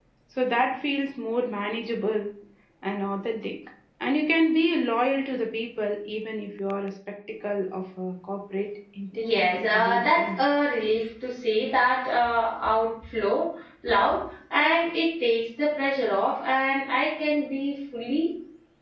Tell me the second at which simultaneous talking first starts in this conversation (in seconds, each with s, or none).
9.2 s